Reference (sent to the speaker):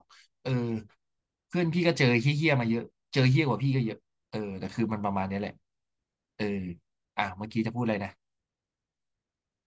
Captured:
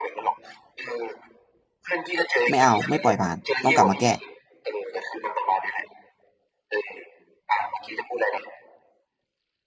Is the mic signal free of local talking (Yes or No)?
No